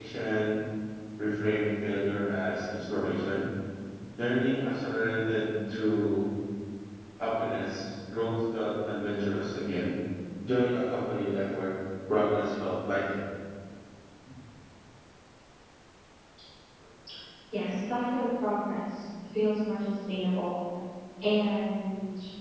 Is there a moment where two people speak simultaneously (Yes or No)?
No